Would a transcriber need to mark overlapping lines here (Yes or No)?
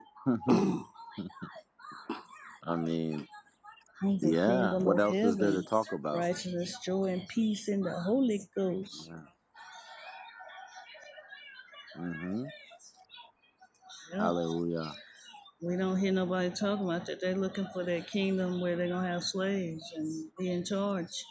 Yes